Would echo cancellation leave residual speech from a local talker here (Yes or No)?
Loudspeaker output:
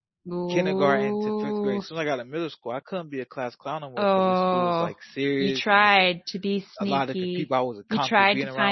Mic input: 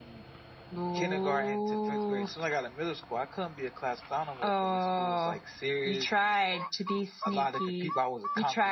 No